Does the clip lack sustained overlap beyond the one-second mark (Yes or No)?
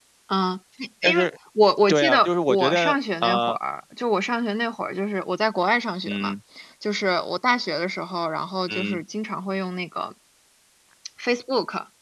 No